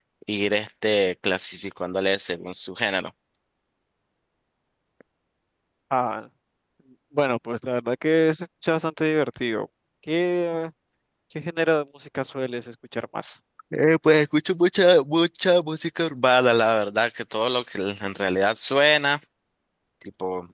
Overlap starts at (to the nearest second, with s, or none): none